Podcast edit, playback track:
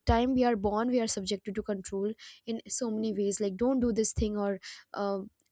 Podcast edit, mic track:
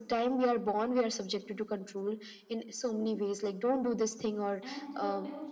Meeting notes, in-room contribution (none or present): present